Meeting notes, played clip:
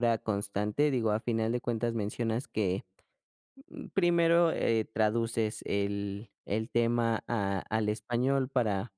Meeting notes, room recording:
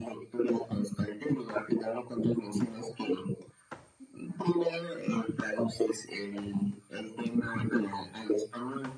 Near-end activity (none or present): none